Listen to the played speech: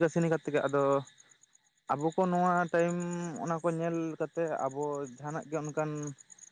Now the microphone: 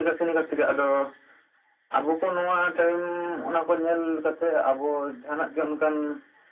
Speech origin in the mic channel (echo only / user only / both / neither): echo only